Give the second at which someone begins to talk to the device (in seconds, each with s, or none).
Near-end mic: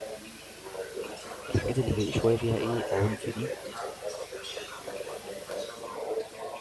1.5 s